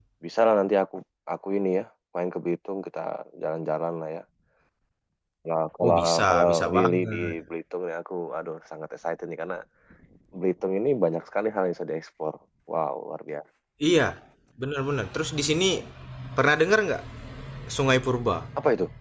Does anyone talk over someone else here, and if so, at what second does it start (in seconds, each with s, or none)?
5.8 s